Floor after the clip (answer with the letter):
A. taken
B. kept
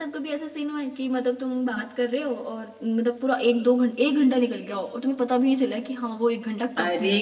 A